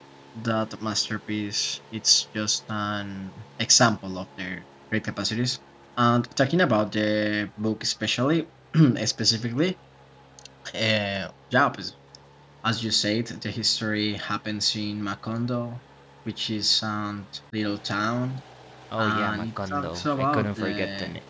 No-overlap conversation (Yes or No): No